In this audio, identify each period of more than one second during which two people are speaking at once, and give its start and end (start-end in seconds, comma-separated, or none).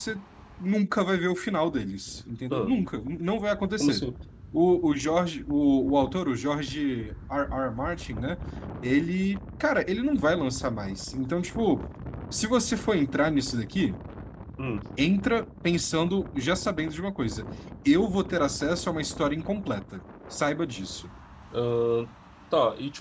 none